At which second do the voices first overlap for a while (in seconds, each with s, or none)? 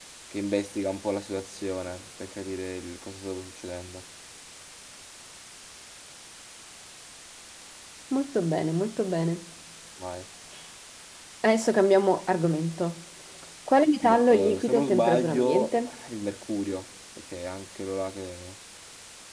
14.0 s